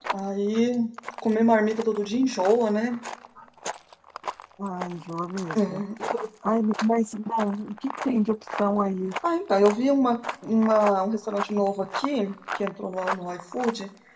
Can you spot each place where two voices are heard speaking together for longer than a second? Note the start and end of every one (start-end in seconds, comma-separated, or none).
none